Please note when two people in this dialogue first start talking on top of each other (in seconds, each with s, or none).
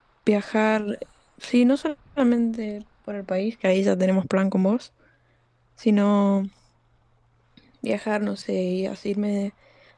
none